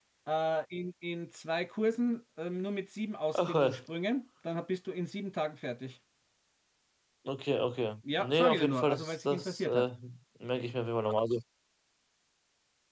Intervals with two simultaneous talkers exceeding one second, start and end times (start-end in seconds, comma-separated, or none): 8.2-9.9